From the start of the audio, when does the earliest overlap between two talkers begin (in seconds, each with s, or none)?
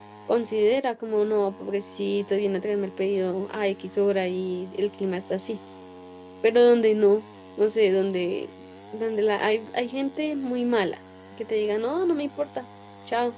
none